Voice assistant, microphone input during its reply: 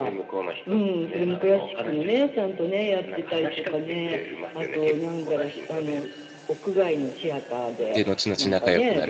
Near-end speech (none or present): present